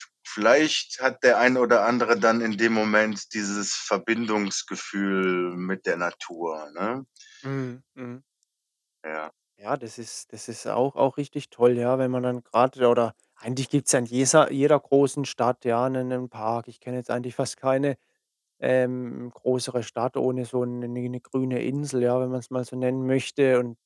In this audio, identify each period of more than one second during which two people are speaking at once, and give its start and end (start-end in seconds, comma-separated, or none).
none